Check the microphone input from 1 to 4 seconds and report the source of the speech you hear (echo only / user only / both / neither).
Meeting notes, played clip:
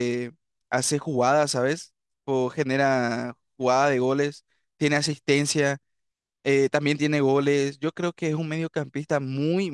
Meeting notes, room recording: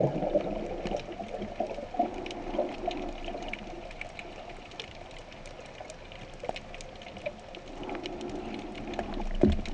neither